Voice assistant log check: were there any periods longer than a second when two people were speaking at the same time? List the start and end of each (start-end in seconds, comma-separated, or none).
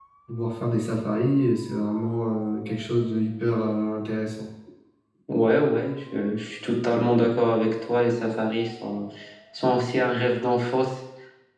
none